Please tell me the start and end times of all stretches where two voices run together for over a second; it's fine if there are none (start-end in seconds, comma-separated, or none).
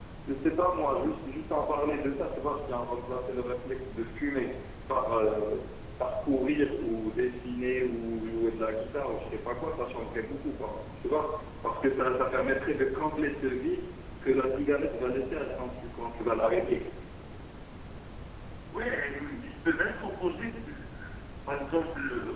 none